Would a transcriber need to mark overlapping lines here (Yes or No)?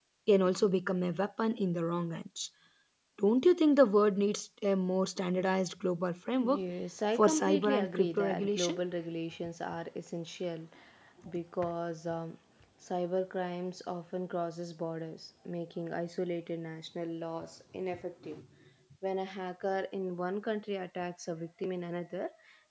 Yes